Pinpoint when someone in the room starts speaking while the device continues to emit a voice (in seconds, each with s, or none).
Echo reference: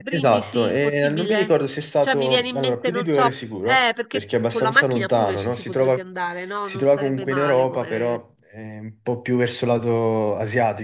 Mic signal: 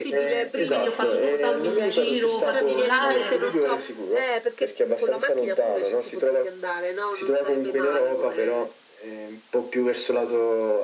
0.5 s